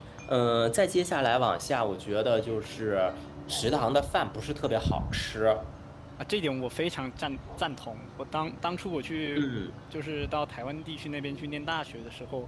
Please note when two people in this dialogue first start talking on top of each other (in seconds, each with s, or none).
none